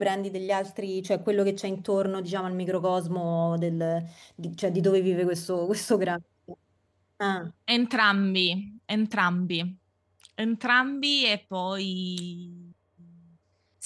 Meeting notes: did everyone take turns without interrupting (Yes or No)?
Yes